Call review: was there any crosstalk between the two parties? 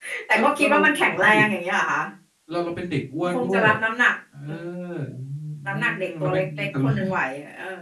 Yes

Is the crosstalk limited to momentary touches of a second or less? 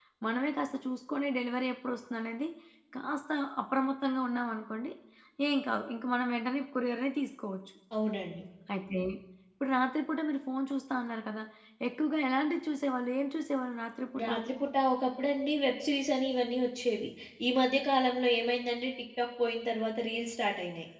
Yes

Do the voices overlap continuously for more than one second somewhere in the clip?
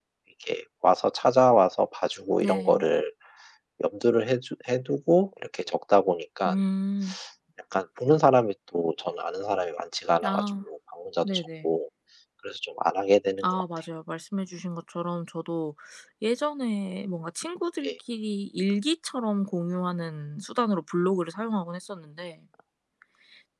No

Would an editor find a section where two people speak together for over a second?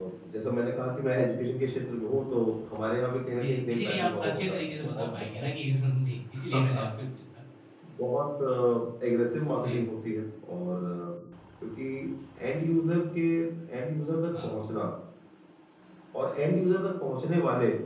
Yes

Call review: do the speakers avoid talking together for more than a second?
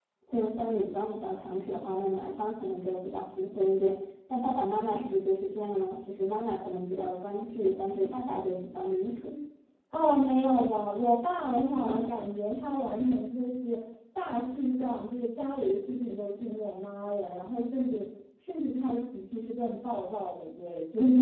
Yes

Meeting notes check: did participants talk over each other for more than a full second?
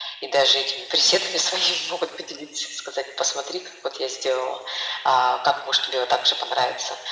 No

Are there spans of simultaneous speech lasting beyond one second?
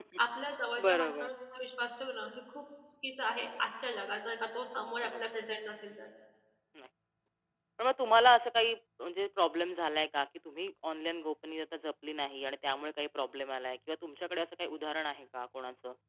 No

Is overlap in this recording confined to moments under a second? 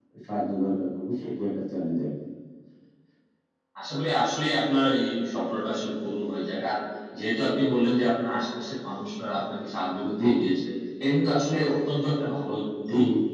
Yes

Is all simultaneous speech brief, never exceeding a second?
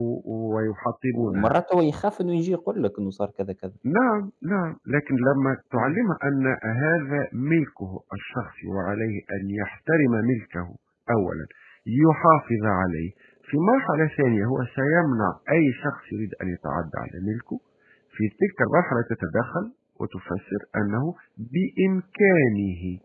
Yes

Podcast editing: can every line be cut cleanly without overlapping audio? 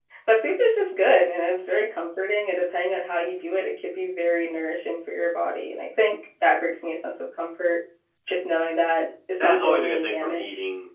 No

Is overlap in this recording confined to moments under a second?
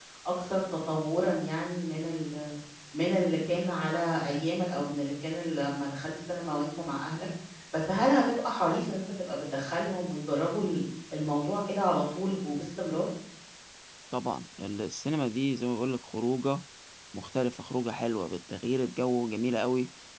Yes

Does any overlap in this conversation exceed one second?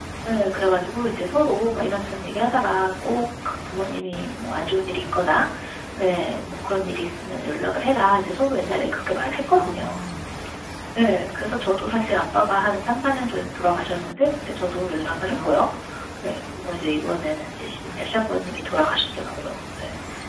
No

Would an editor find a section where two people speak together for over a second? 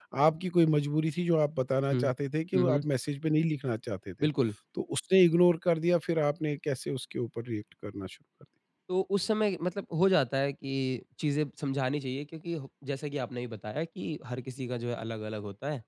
No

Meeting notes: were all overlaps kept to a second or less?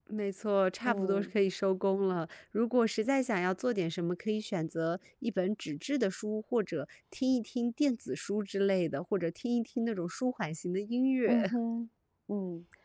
Yes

